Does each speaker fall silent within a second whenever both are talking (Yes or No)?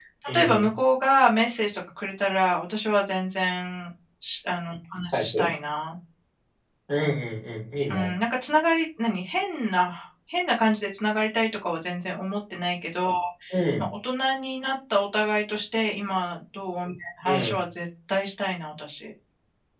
Yes